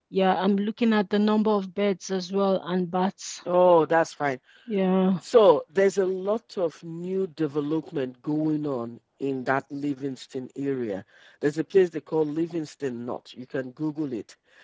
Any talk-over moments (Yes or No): No